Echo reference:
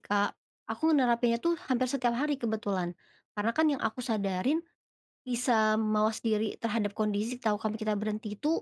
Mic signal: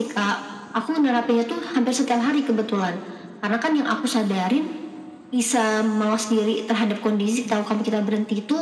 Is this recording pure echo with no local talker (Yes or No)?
Yes